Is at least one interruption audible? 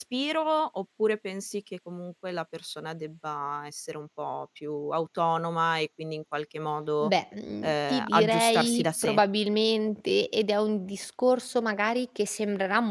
Yes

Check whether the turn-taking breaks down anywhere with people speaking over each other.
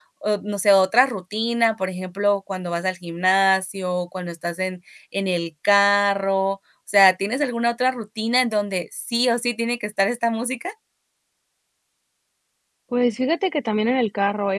No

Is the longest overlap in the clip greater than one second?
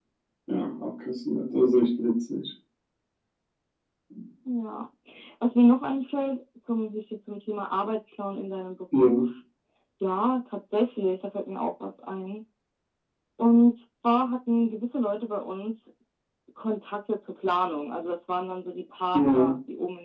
No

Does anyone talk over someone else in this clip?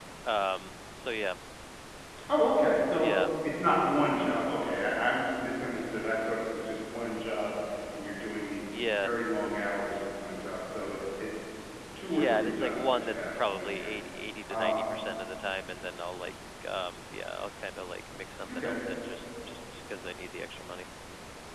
Yes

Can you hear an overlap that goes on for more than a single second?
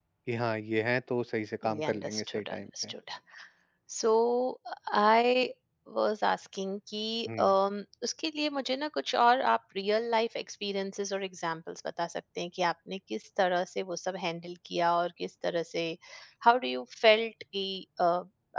Yes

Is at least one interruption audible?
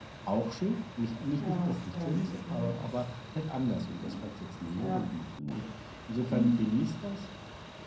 Yes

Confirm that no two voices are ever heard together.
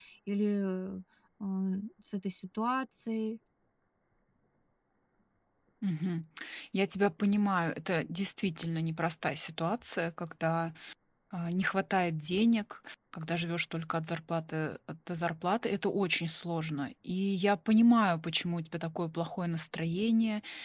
Yes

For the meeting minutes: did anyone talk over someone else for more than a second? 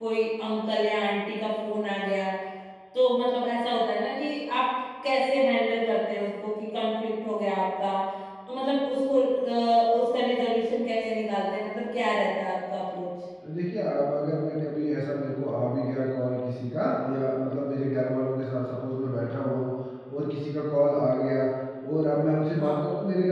No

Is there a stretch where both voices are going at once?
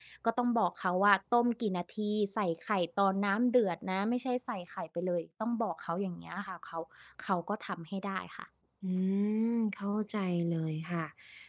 No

